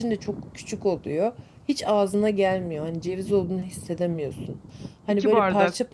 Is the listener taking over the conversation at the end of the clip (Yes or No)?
No